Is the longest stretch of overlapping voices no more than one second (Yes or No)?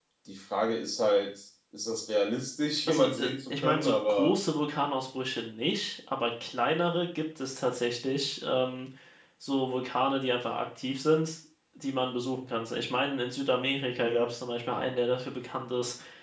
No